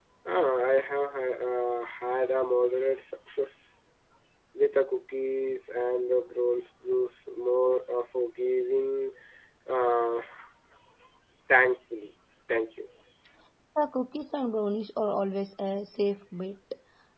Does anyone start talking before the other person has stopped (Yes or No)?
No